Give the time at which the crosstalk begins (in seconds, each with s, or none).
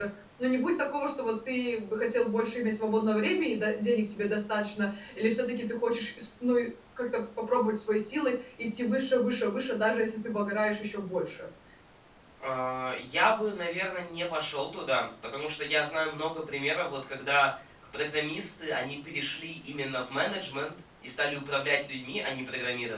none